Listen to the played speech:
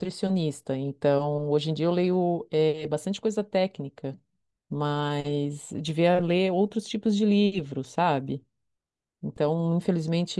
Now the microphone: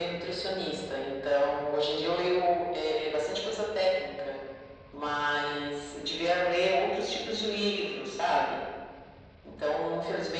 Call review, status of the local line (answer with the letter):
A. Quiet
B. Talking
A